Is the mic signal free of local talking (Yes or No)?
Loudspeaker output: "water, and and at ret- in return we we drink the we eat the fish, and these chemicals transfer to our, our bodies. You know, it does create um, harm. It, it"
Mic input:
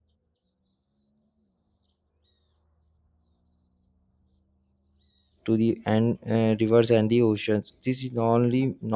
No